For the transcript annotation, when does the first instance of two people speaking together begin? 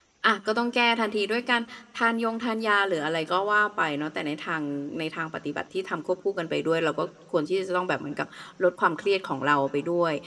none

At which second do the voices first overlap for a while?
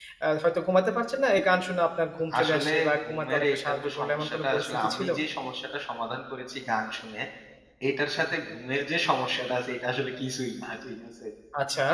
2 s

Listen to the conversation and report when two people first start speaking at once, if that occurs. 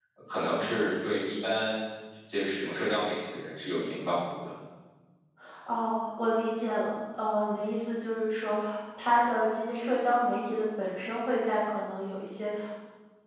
none

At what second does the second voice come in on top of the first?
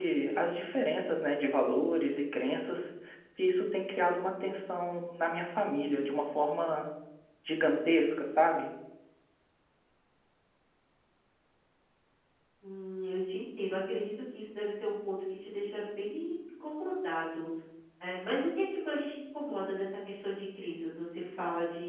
none

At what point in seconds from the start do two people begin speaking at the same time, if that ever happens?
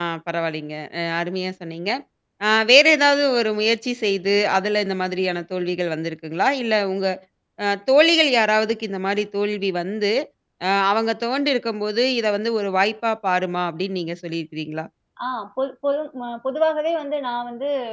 none

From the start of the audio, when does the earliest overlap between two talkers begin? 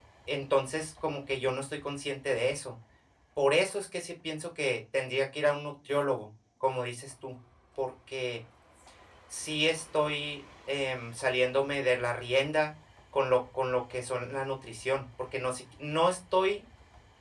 none

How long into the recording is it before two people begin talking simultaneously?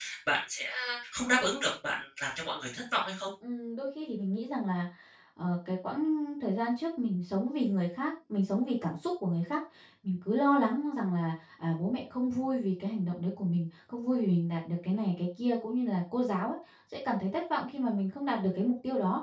none

